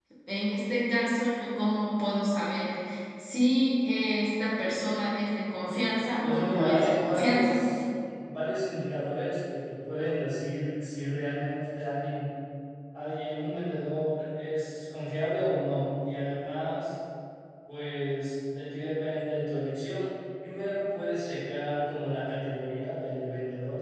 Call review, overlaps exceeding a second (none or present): present